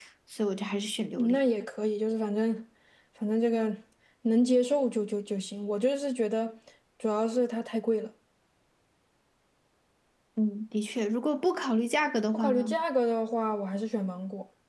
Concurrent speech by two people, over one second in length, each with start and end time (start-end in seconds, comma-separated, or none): none